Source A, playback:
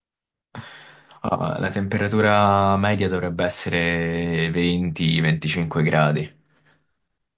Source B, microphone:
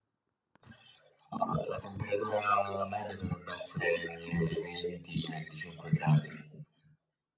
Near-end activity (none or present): none